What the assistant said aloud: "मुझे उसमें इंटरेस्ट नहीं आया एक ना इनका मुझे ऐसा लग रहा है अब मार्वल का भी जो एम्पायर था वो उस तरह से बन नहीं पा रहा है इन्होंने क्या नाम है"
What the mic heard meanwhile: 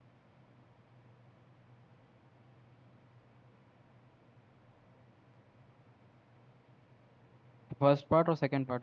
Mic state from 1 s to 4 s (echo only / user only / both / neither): neither